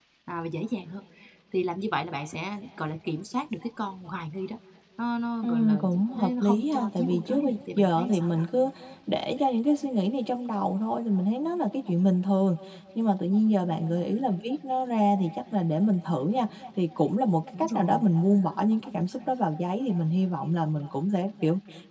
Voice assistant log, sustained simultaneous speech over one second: present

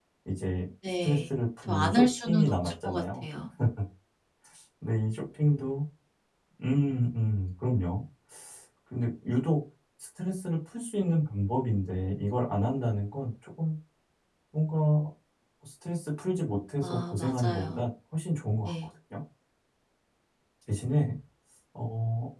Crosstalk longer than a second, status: present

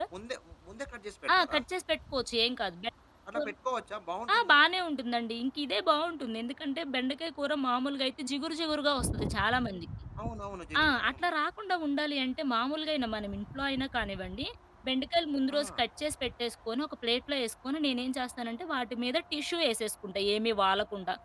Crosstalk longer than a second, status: none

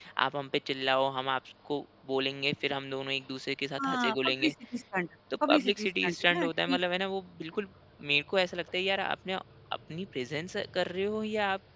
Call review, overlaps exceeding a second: present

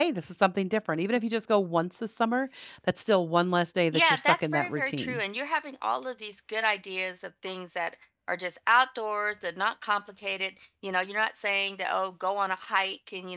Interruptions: present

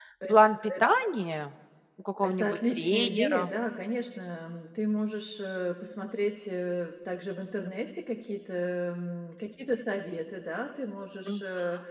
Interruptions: present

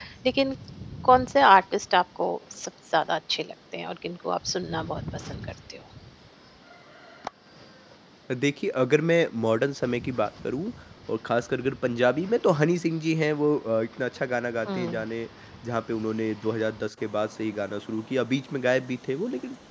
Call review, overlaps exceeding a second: none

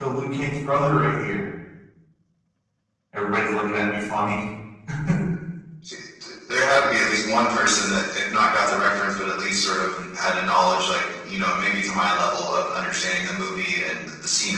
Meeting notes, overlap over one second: none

